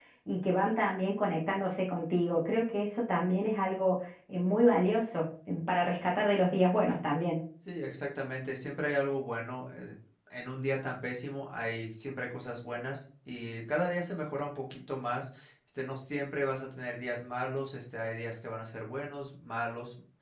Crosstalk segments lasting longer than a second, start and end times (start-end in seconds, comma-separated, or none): none